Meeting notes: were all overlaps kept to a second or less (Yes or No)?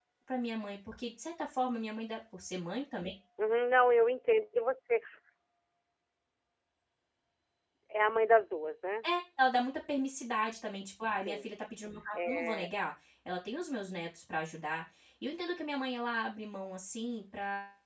Yes